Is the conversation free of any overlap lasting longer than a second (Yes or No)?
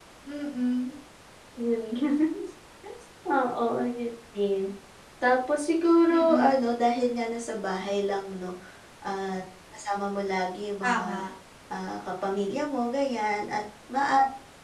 Yes